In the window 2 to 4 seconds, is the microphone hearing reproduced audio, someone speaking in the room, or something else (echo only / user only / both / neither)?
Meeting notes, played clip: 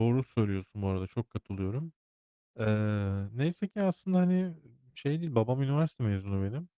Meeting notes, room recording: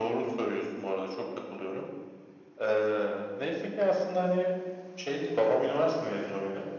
echo only